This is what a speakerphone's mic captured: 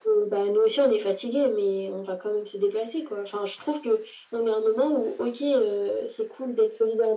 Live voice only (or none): none